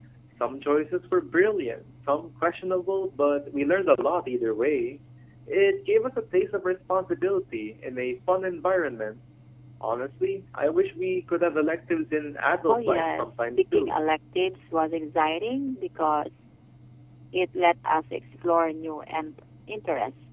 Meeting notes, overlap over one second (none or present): present